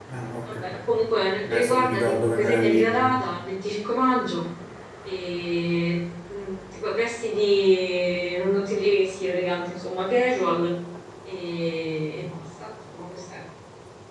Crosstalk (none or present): present